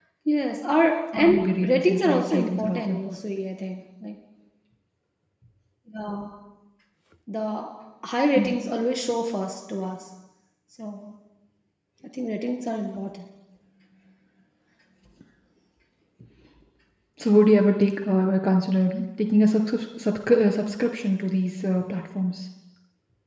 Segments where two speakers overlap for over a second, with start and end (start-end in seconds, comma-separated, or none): 1.1-3.2